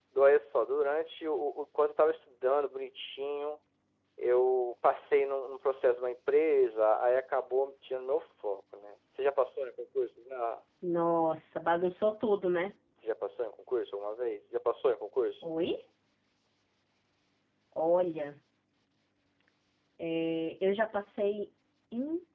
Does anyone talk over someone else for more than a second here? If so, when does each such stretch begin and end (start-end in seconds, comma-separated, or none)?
none